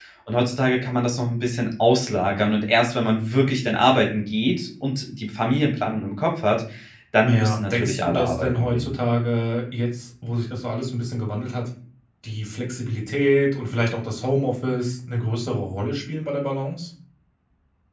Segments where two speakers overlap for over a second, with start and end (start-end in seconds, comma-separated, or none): 7.3-8.9